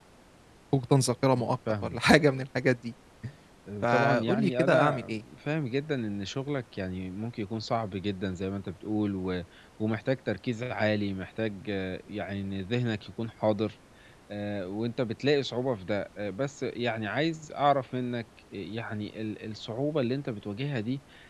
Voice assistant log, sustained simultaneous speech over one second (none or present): present